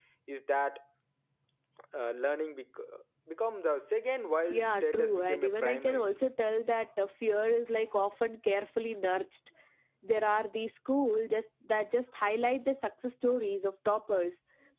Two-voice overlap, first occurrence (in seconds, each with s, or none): 4.5 s